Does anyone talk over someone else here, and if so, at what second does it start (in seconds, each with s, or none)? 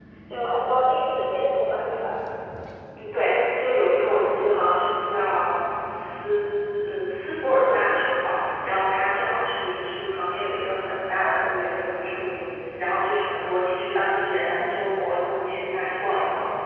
none